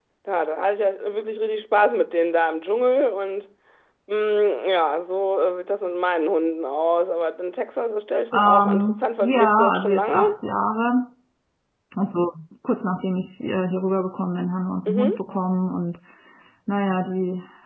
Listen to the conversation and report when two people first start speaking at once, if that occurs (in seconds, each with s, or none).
8.3 s